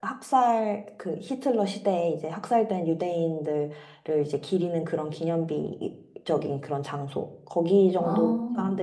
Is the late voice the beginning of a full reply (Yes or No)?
No